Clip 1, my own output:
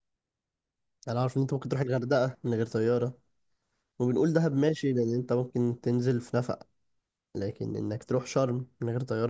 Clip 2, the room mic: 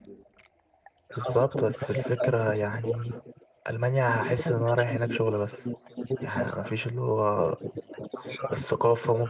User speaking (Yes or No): Yes